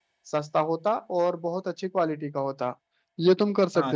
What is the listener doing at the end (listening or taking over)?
taking over